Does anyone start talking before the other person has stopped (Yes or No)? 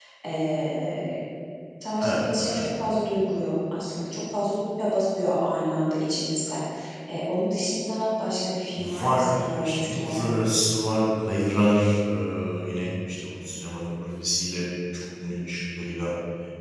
Yes